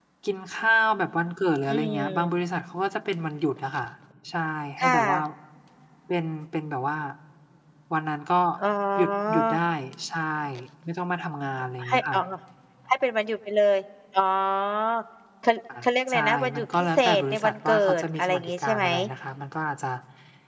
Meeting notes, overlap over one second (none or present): present